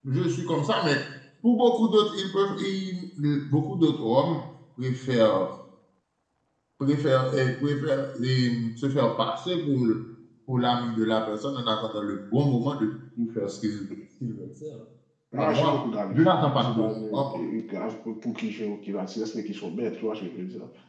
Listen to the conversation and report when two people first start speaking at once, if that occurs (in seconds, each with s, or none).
15.3 s